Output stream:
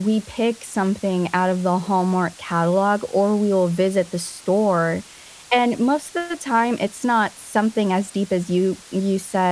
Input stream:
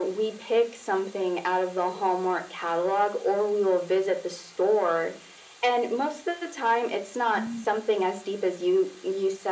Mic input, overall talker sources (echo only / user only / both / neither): both